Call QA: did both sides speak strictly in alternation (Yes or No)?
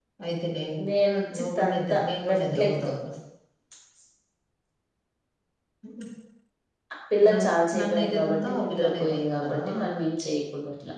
No